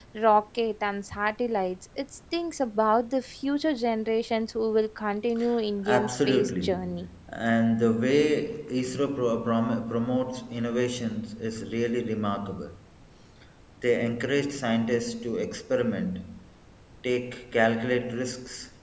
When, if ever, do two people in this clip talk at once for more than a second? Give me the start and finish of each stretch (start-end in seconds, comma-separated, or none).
5.9-7.1